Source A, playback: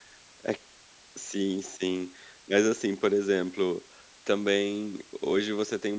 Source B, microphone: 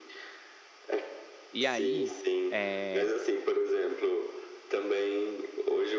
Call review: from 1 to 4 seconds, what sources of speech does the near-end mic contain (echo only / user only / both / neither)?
both